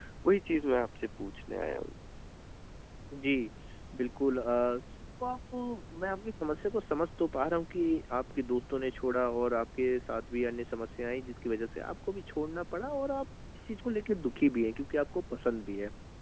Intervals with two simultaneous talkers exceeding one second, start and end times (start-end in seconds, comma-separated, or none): none